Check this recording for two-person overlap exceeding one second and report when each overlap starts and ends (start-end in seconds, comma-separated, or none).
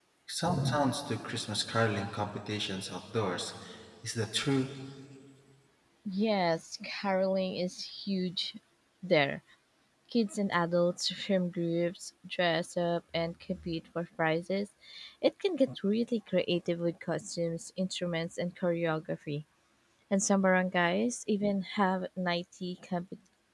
none